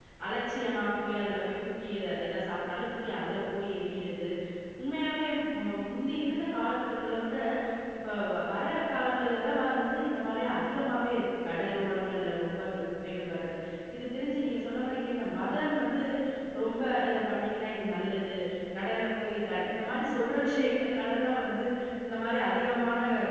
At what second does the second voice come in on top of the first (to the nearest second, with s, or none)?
none